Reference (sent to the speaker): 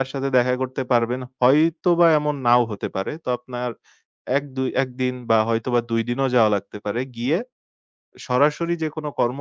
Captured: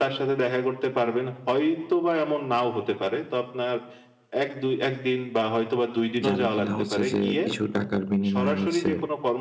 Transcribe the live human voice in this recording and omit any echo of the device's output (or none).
যারা কিনা হচ্ছে যে কিছু টাকার বিনিময়ে হচ্ছে